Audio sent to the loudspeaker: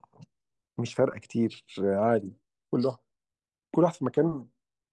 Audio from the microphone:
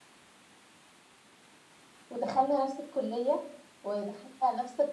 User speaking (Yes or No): Yes